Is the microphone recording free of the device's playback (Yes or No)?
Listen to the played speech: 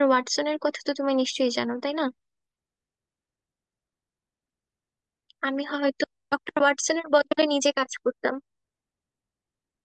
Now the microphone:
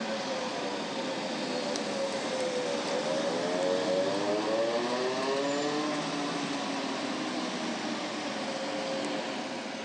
Yes